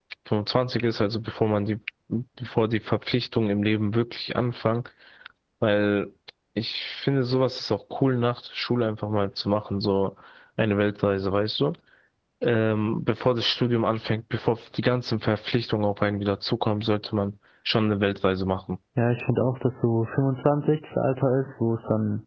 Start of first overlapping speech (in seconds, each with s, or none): none